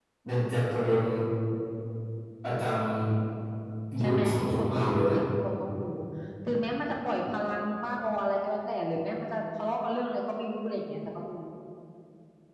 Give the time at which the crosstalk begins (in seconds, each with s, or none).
4.0 s